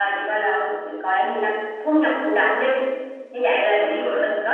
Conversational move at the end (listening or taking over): listening